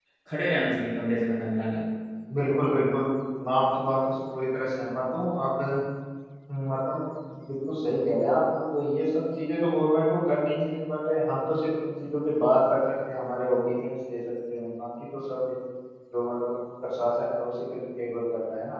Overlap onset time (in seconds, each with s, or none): none